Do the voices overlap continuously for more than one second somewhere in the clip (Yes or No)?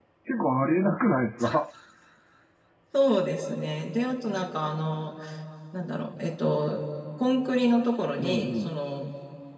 No